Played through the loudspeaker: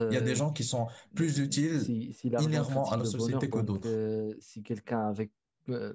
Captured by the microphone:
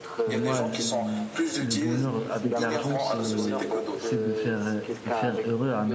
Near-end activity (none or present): present